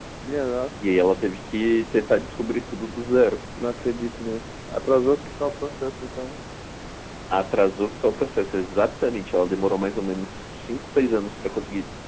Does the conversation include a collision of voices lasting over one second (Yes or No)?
No